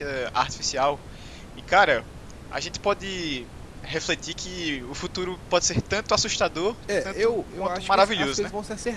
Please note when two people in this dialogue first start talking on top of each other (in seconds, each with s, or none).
6.9 s